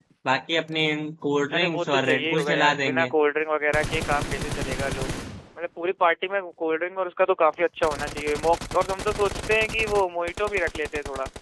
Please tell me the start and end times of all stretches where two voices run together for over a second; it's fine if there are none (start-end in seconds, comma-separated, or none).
1.5-3.1